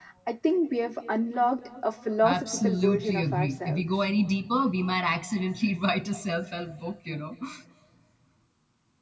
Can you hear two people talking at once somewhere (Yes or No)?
Yes